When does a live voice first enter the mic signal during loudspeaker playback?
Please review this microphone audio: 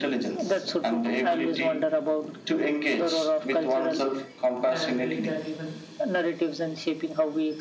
4.7 s

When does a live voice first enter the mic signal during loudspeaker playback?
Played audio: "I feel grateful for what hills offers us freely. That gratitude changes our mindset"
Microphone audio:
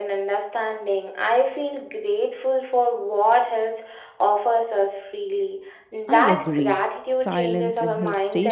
6.0 s

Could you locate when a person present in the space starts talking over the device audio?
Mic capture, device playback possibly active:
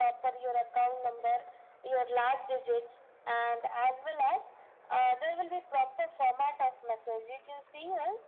none

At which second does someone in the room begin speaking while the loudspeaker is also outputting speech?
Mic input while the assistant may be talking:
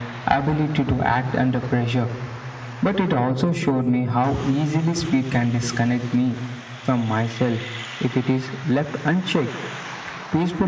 none

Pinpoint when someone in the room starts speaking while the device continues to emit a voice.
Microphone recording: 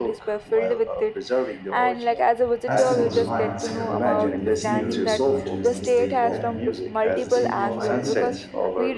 2.6 s

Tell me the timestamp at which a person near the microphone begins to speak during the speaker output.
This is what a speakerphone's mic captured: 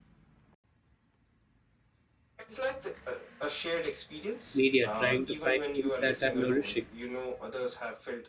4.5 s

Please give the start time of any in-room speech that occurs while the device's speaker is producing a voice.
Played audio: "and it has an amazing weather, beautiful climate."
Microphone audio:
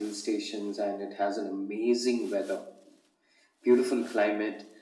none

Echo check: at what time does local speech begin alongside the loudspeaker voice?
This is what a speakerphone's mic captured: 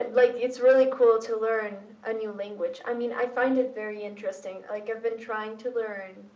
none

